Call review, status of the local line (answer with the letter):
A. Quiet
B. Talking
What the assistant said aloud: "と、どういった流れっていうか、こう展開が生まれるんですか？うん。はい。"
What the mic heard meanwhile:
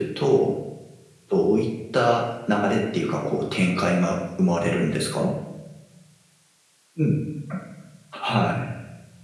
A